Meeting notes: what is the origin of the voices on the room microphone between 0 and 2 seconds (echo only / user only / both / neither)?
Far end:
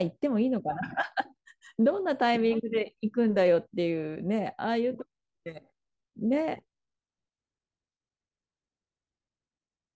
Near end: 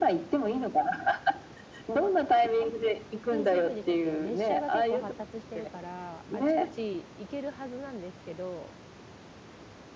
echo only